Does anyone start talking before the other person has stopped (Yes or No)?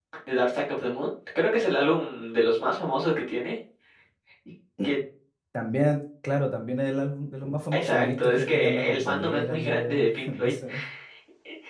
Yes